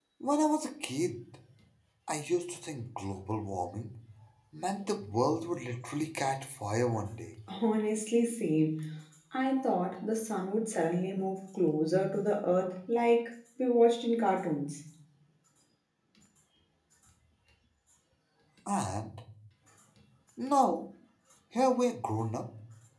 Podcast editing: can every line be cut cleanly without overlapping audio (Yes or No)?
Yes